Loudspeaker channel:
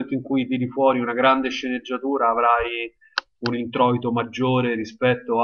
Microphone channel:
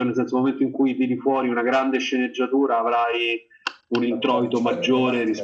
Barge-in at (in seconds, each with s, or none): 4.1 s